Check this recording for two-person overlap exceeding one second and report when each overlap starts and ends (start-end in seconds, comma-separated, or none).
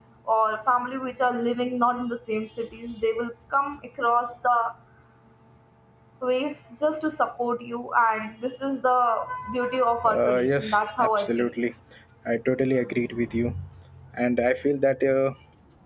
10.0-11.5